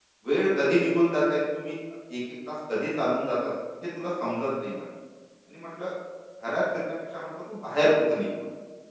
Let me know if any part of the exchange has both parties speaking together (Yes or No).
No